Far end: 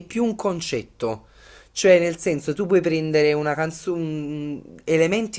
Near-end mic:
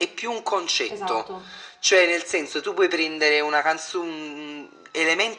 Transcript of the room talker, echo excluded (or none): esatto.